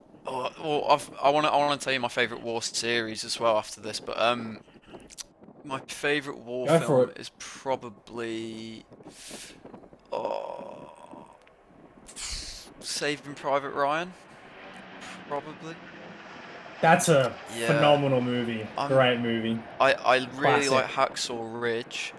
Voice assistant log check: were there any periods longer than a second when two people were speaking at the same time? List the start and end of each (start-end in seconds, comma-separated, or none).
none